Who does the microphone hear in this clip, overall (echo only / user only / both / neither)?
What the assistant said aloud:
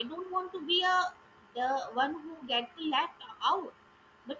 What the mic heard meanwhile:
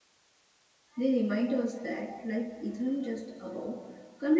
user only